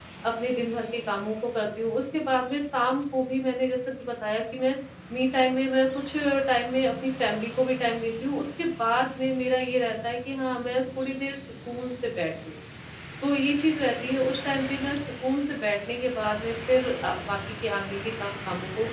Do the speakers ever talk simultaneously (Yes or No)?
No